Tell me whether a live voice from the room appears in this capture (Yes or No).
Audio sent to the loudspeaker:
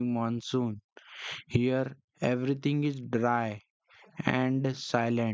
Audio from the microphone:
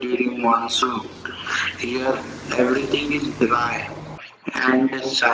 No